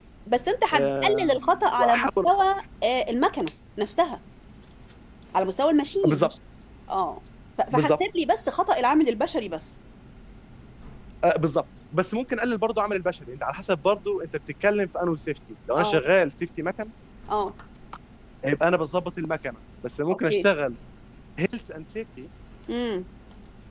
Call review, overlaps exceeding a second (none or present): present